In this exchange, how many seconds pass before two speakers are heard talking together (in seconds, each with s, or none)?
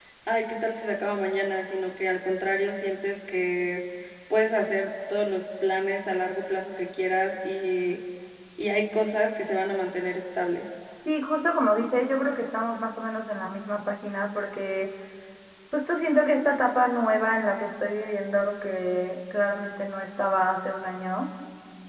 none